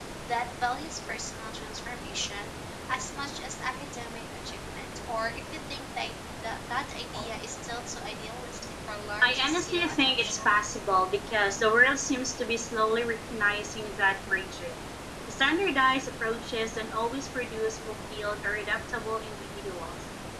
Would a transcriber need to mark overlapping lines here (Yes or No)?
Yes